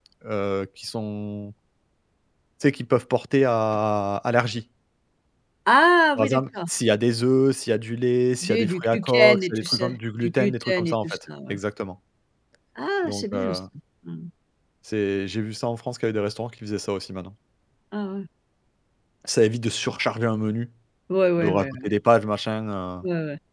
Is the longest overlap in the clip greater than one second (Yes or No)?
Yes